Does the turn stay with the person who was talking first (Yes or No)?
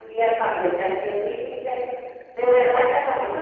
No